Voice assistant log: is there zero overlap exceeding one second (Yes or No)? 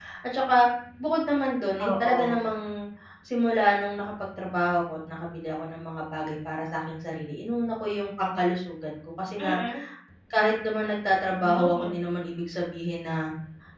Yes